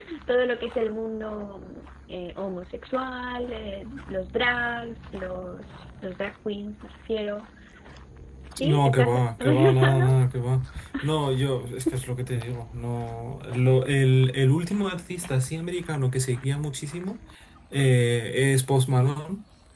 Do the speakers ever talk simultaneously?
Yes, from 8.6 s

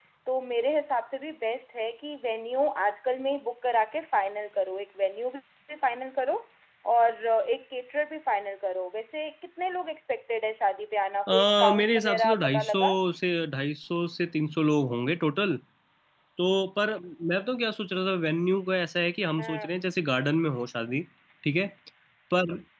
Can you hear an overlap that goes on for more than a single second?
Yes, from 11.3 s

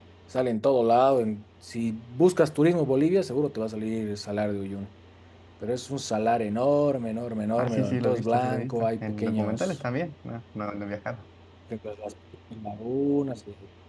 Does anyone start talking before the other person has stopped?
Yes, from 7.6 s

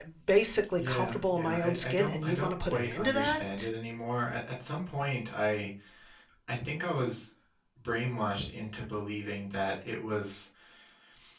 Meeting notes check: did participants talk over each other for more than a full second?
Yes, from 0.8 s

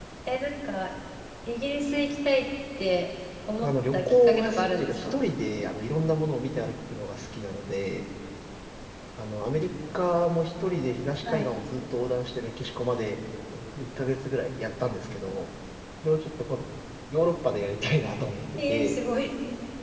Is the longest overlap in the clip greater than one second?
Yes, from 3.6 s

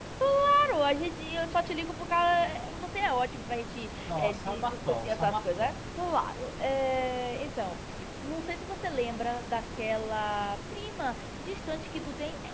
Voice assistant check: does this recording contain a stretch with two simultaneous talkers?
Yes, from 4.1 s

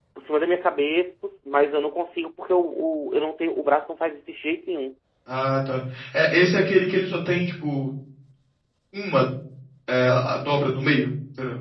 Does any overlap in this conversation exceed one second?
No

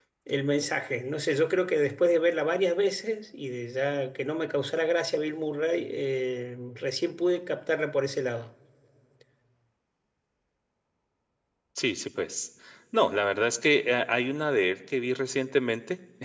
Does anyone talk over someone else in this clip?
No

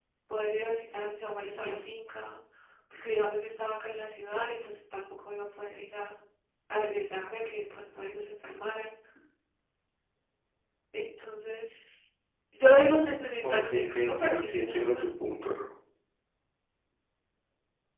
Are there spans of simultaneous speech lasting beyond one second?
Yes, from 13.4 s

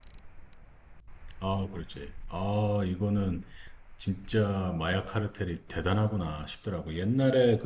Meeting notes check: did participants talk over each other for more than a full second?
No

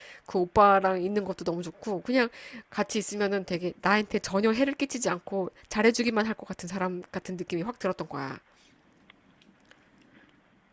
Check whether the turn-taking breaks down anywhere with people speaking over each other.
No

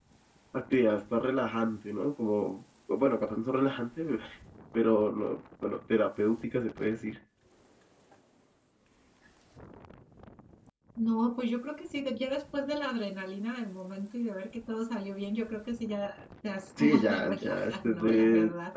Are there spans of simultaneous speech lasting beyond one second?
Yes, from 16.8 s

